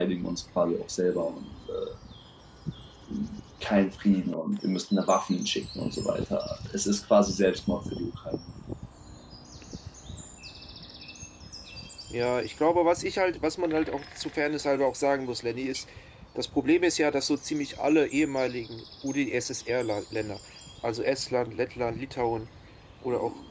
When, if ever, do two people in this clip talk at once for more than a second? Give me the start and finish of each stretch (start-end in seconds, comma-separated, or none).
none